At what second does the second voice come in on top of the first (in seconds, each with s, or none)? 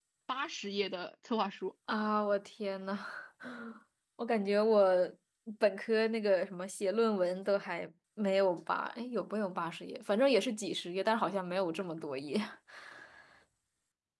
none